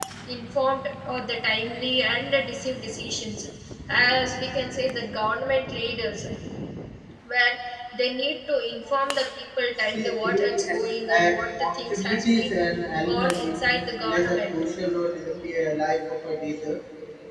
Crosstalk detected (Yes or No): Yes